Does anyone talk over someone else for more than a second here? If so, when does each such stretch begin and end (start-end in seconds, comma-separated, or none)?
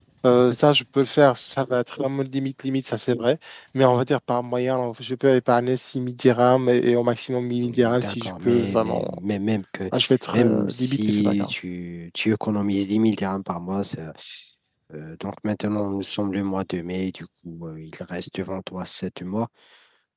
7.6-9.0, 10.3-11.5